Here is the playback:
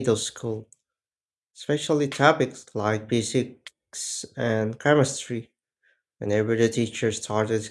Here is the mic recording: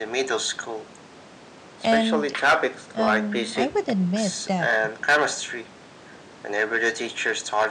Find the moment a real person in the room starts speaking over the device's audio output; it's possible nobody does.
2 s

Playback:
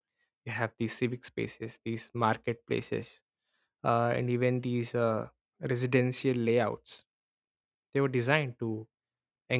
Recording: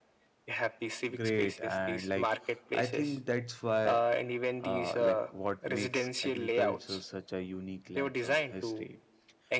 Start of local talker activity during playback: 1 s

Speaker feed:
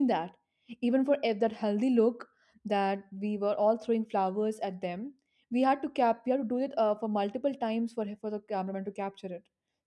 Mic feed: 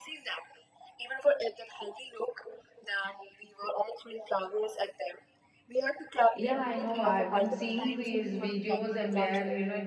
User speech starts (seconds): 6 s

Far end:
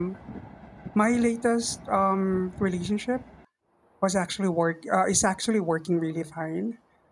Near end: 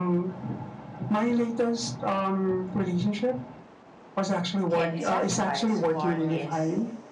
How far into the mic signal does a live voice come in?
5 s

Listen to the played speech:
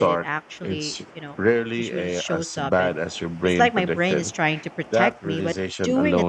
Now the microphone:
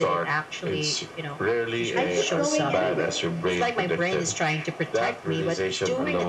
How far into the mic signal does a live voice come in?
2 s

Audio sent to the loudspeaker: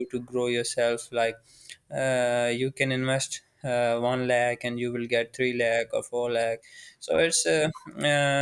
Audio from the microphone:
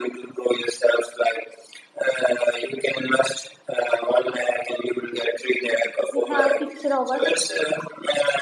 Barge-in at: 6 s

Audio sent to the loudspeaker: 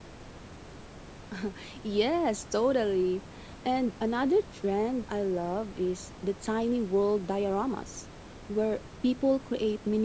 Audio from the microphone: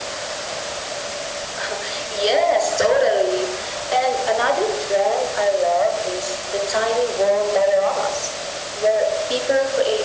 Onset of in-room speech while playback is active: none

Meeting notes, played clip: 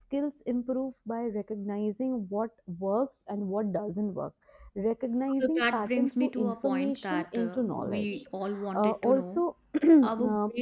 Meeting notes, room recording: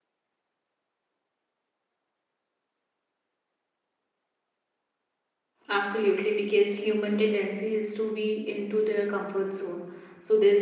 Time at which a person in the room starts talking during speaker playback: 6 s

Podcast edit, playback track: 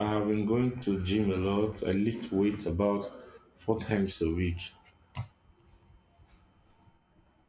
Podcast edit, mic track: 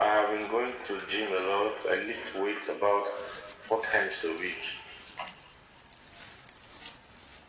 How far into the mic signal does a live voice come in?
none

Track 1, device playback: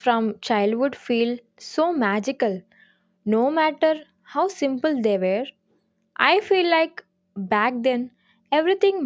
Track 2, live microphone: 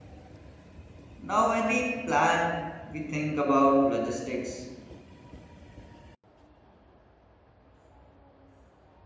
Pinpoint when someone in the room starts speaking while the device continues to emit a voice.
1 s

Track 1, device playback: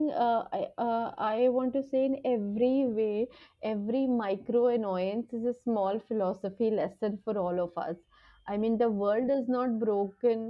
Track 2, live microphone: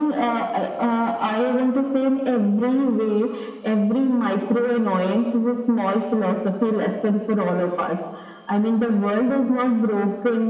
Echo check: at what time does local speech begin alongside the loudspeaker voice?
none

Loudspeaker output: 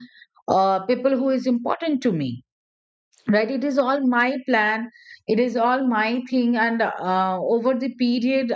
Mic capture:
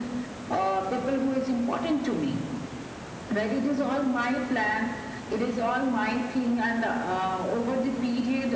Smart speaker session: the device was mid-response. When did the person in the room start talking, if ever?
none

